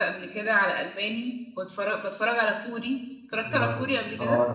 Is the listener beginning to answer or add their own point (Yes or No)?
Yes